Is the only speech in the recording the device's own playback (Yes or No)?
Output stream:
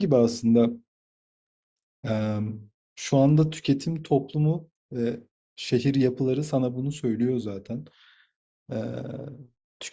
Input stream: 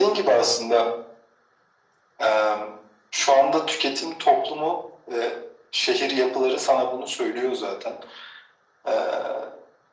Yes